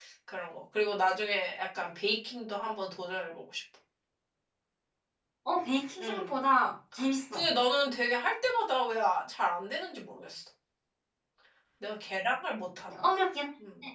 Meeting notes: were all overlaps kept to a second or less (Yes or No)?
Yes